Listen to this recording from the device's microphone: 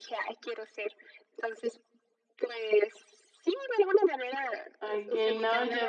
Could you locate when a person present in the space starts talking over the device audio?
4.8 s

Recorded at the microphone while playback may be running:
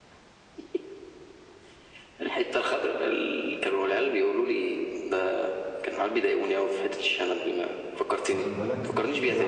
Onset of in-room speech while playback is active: 8.3 s

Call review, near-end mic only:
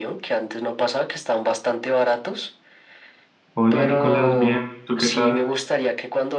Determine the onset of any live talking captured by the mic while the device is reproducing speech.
3.5 s

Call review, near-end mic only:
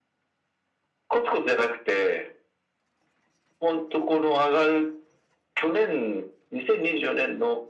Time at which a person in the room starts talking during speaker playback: none

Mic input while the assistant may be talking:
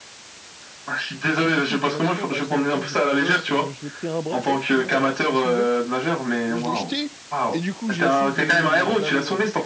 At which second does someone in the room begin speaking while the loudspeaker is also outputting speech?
1.4 s

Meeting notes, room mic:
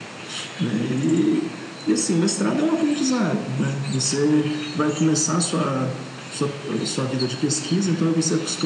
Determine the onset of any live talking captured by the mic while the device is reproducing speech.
none

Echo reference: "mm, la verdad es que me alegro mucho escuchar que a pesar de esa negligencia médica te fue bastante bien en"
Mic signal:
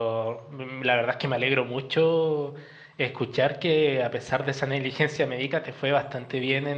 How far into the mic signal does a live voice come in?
none

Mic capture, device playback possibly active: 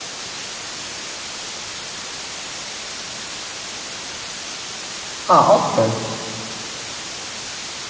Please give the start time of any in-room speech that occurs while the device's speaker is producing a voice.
5.2 s

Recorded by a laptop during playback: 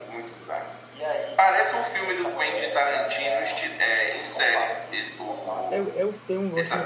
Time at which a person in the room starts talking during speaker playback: 5.7 s

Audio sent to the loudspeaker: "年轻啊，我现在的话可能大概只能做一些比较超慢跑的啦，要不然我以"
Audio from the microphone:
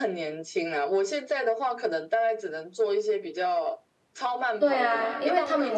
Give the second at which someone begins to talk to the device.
4.6 s

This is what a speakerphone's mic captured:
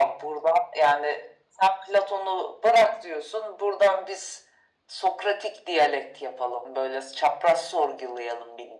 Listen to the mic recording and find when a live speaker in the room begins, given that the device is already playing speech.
none

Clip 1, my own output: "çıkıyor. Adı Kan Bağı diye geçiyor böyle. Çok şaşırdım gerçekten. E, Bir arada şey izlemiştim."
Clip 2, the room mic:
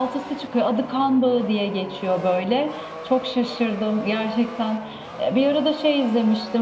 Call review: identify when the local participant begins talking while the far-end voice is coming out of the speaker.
none

